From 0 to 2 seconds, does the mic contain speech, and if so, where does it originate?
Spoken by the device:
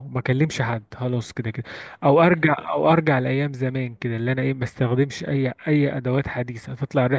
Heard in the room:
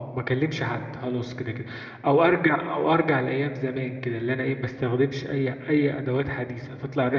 echo only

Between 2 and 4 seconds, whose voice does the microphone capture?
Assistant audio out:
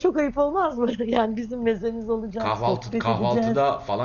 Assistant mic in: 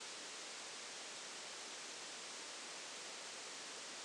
neither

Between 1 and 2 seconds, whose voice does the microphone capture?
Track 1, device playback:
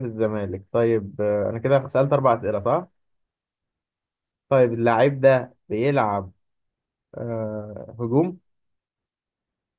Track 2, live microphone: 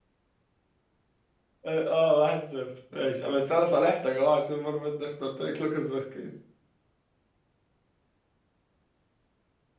user only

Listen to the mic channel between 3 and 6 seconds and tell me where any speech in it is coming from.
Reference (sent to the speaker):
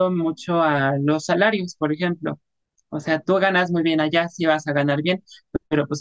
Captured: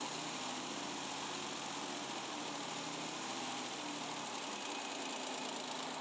neither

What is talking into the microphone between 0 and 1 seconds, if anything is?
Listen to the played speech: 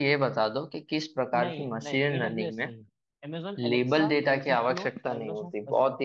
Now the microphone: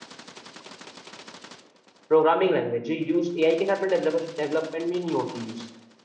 neither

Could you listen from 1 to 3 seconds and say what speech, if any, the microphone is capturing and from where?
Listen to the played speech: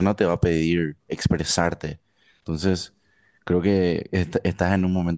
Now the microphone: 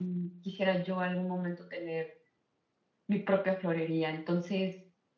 user only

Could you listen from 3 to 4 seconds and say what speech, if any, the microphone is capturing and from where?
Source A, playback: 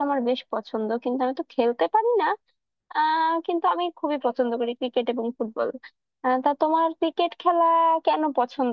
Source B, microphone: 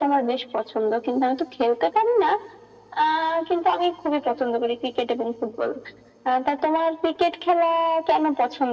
echo only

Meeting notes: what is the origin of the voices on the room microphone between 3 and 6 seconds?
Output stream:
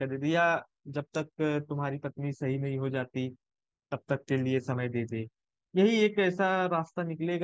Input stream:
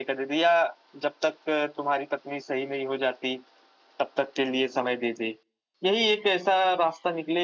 echo only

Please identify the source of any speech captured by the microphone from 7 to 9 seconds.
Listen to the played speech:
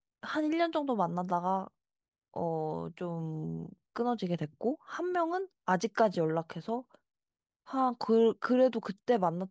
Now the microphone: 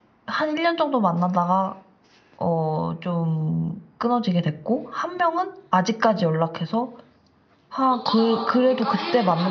both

